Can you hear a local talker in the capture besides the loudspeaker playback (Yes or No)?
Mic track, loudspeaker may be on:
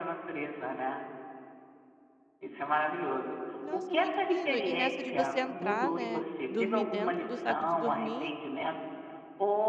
Yes